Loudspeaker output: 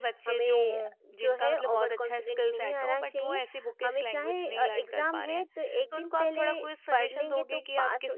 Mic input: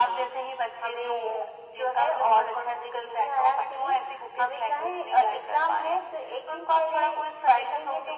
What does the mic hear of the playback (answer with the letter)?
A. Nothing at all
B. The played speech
B